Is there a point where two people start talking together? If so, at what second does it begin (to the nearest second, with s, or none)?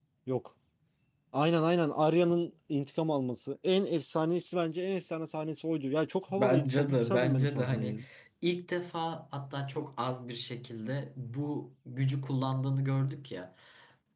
6 s